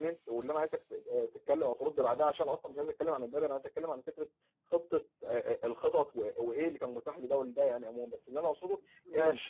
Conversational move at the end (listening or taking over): listening